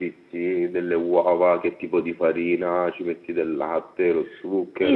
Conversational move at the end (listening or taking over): taking over